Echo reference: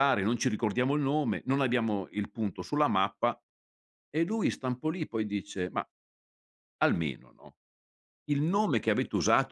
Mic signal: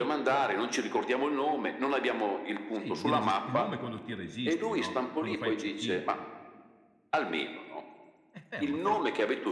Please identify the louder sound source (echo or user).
echo